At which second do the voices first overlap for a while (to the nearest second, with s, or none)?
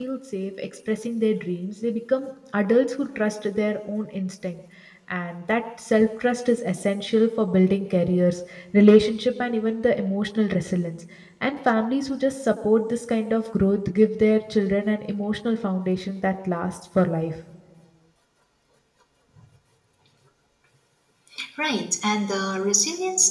none